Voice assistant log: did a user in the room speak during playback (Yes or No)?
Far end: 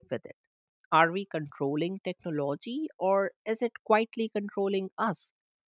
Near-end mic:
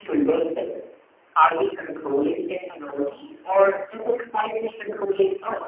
No